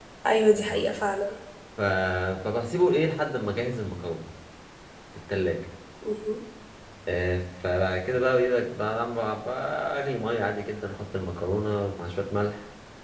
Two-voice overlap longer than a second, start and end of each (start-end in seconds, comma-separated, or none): none